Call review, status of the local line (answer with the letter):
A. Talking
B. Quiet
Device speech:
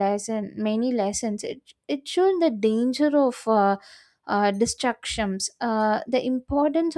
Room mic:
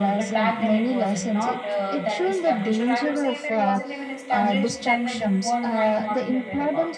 A